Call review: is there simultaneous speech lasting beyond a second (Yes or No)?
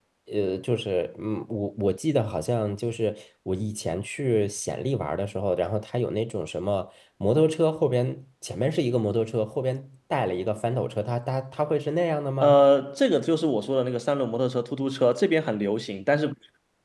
No